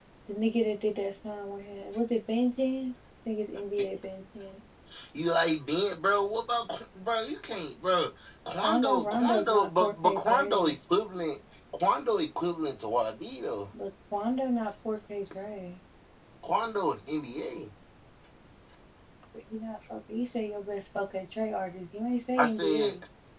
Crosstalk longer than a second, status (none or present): present